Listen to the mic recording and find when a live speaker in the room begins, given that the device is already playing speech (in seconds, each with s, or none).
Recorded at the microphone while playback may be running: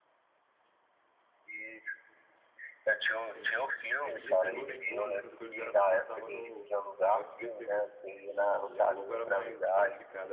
3.2 s